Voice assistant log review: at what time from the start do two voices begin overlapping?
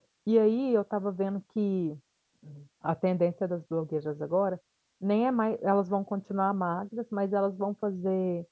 none

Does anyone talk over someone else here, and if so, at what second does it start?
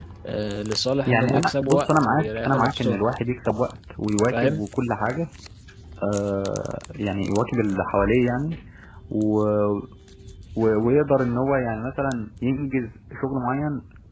1.1 s

